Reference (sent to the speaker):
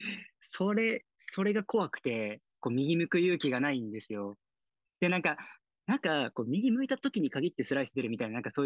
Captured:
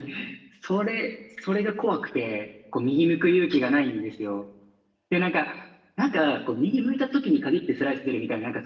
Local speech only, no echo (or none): none